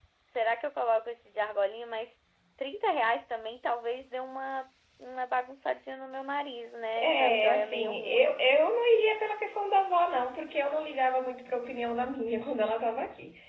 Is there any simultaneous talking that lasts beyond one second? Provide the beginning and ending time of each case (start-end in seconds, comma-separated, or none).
7.0-8.4